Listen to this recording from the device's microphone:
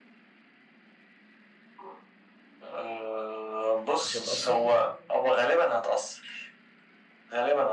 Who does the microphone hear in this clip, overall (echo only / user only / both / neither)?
both